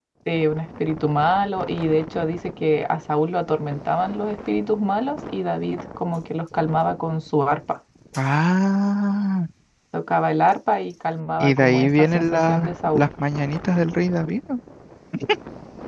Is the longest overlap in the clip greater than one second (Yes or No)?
Yes